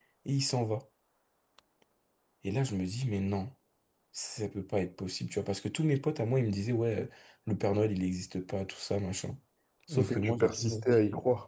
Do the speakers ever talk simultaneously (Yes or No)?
Yes